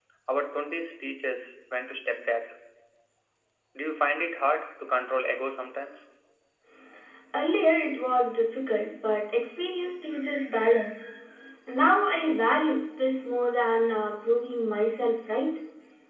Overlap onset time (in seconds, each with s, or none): none